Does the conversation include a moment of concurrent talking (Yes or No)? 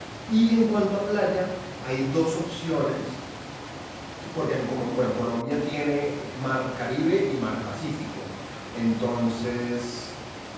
No